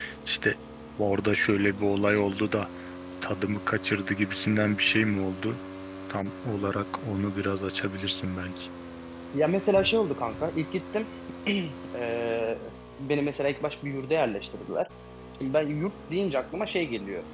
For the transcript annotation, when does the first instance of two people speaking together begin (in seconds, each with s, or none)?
none